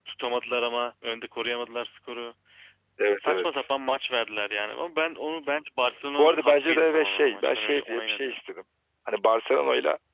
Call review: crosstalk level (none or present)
present